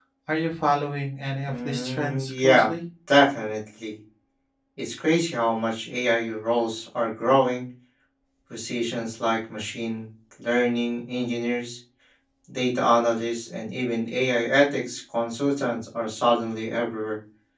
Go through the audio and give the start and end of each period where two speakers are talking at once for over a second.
1.5-2.7

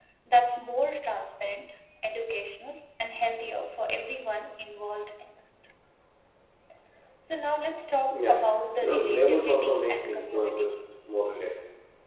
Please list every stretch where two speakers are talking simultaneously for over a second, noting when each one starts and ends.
8.8-10.8

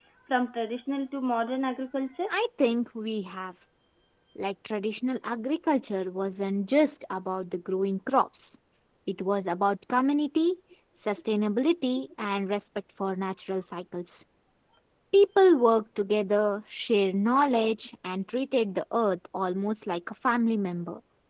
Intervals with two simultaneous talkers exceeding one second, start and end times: none

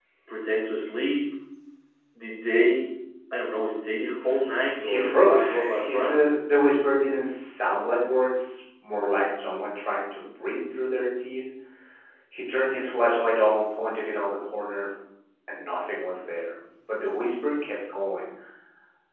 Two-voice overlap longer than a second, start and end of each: 4.8-6.2

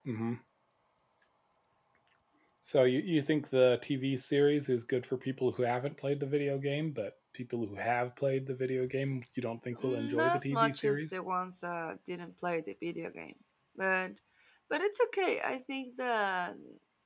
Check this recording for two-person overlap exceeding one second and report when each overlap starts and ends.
9.8-11.2

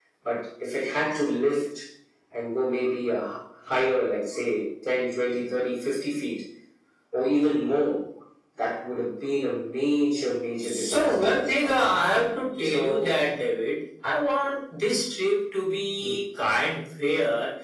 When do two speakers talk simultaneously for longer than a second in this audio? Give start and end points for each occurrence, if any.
10.6-11.9

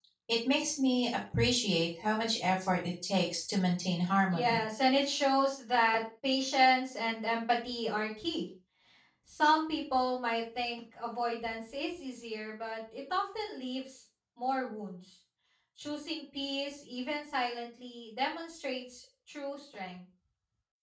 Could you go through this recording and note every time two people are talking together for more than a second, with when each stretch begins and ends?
none

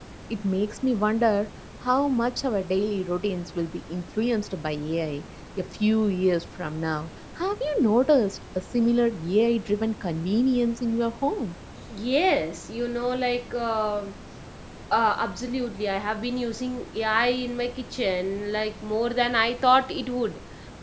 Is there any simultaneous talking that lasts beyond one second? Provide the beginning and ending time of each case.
none

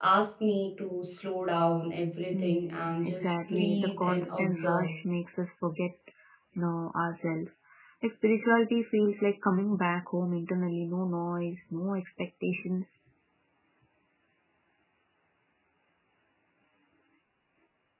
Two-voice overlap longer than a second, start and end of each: 2.3-5.0

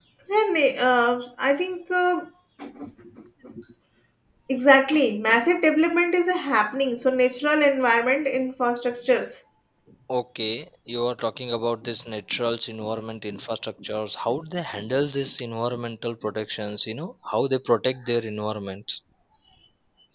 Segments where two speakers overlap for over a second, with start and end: none

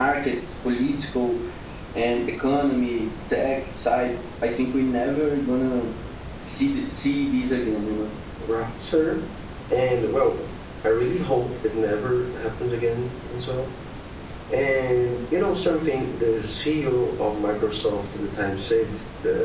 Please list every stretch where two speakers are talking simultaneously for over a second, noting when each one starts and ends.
none

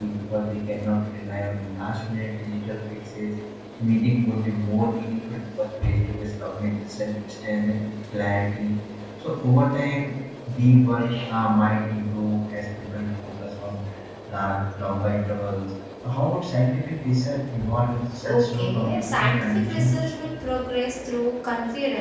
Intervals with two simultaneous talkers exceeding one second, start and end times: 18.4-20.1

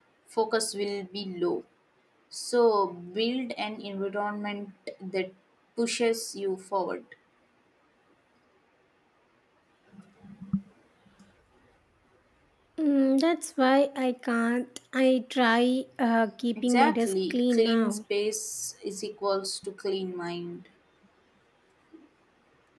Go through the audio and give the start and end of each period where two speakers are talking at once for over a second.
16.6-18.0

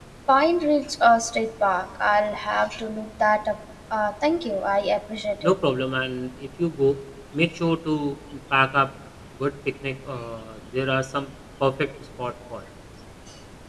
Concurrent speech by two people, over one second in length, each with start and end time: none

